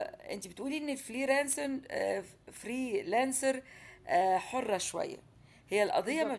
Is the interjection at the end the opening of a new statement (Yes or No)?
No